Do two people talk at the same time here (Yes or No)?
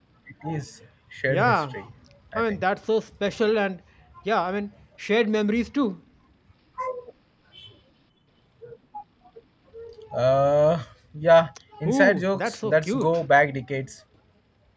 Yes